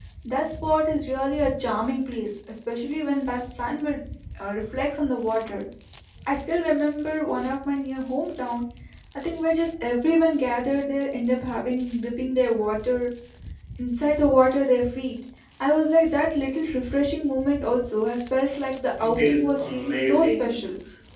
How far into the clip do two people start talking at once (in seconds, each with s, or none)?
19.0 s